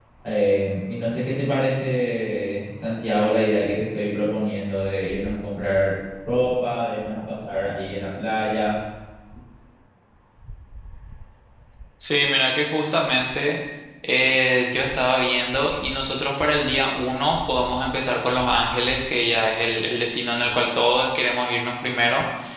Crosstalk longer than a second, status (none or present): none